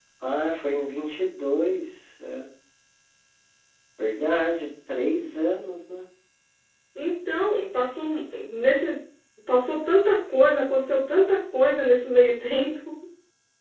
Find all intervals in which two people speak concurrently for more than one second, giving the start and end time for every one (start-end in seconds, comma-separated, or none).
none